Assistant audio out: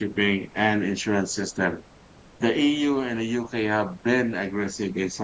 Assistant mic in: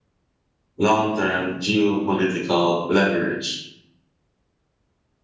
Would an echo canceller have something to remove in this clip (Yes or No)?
No